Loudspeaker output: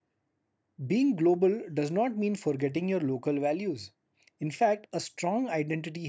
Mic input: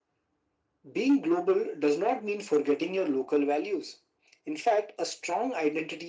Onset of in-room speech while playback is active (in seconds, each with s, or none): none